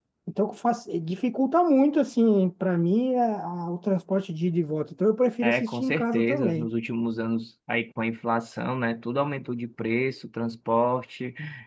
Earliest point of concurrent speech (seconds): 5.4 s

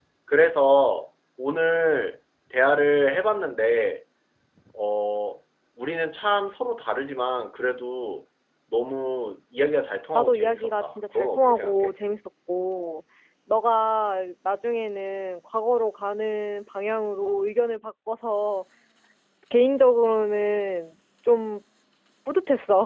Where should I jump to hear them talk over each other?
10.1 s

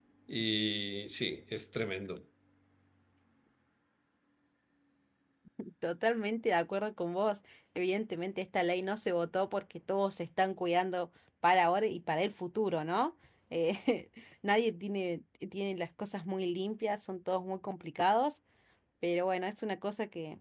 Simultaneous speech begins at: none

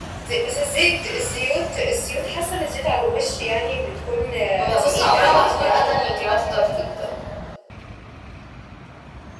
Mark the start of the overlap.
4.6 s

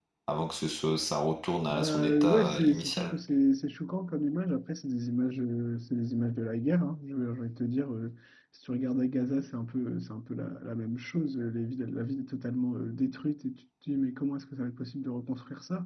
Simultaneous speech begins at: 1.7 s

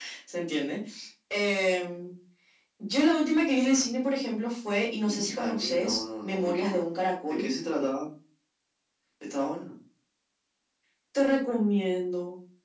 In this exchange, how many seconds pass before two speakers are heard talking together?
5.1 s

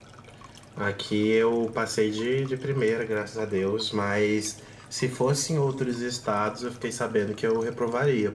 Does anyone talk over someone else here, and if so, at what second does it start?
none

